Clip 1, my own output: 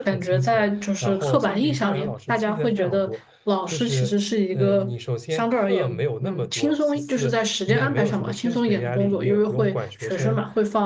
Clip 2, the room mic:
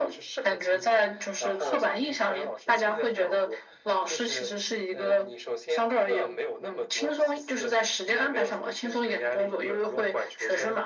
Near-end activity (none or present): none